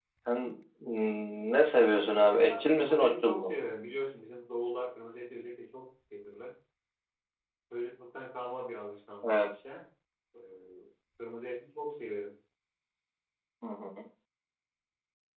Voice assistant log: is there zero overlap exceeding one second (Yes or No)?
No